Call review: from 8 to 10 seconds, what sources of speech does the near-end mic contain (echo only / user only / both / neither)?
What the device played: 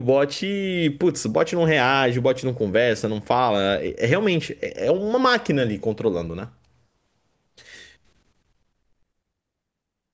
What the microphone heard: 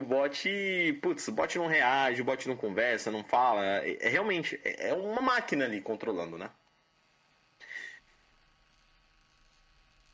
neither